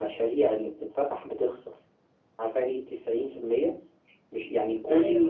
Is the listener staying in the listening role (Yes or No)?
Yes